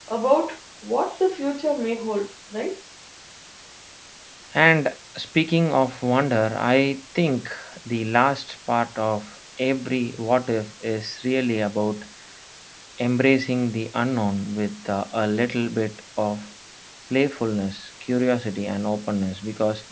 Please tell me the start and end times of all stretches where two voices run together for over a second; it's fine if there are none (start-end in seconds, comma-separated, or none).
none